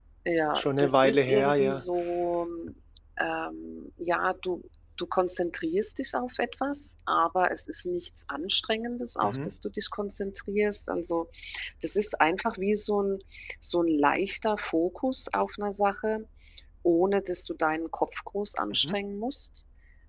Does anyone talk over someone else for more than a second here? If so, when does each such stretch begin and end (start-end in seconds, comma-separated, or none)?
0.6-1.8